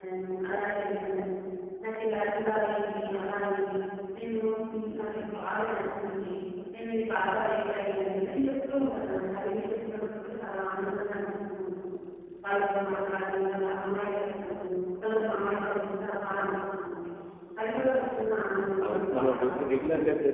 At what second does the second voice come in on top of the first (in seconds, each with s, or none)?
18.8 s